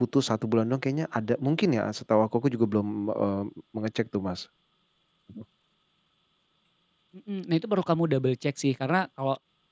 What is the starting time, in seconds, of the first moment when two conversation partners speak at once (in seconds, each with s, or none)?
none